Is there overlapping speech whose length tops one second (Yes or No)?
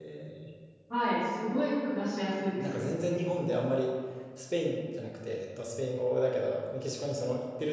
No